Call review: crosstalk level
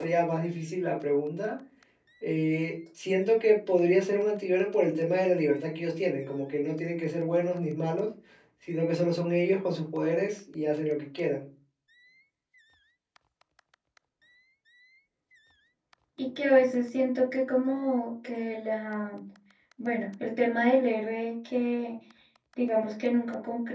none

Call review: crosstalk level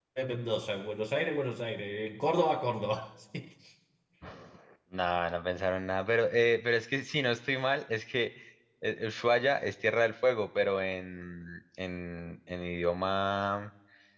none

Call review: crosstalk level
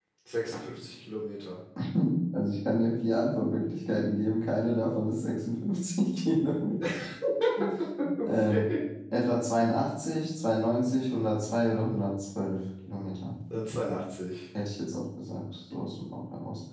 none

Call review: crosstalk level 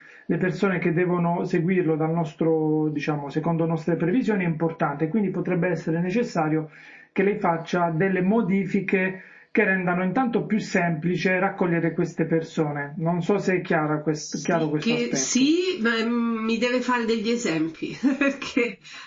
present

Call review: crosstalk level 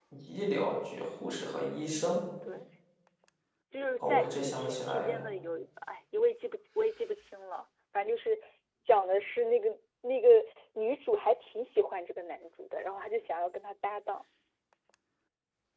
present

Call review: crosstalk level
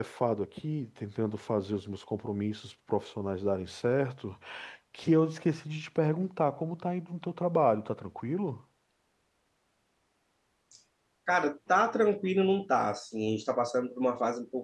none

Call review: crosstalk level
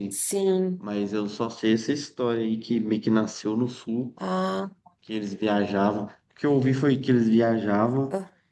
none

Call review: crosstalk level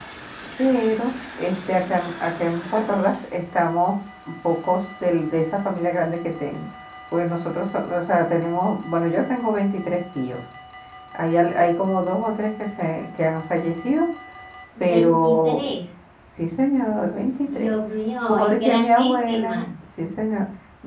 present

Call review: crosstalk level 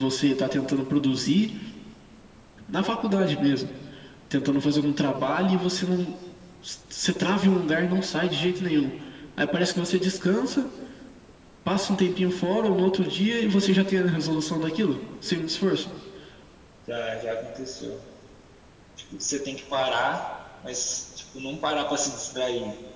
none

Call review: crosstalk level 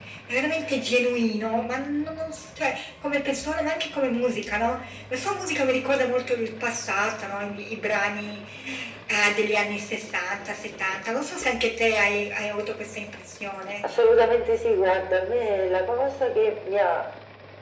none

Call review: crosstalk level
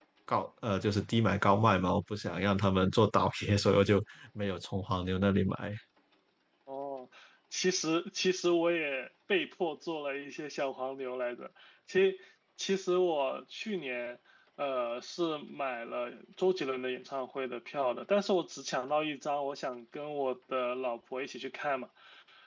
none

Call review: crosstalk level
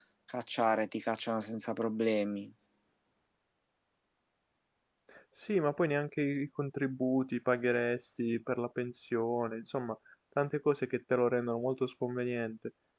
none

